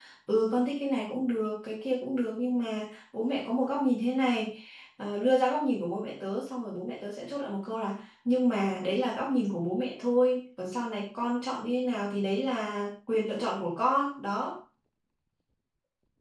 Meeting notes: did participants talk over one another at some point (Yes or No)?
No